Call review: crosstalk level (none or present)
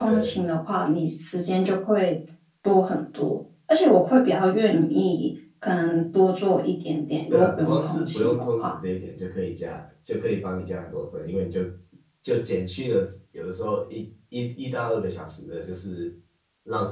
present